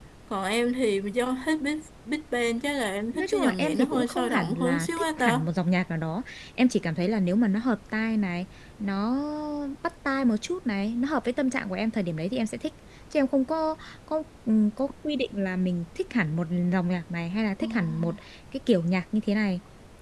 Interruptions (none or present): present